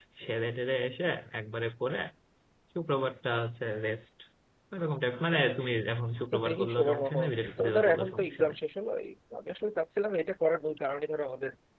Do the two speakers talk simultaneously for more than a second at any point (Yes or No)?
Yes